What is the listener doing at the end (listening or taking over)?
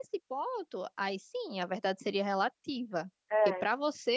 listening